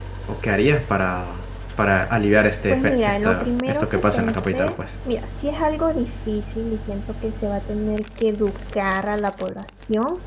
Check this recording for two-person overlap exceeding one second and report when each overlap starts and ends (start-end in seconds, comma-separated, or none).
2.7-4.7